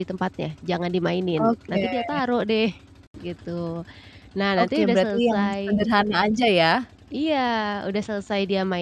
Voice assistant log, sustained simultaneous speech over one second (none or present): present